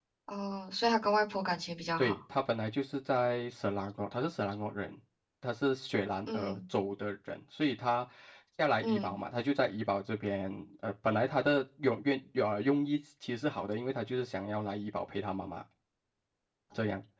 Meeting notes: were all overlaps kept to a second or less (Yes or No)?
Yes